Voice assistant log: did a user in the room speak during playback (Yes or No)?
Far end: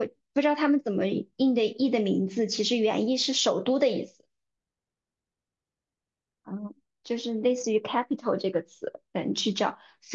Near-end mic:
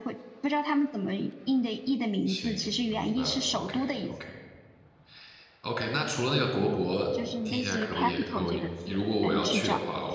Yes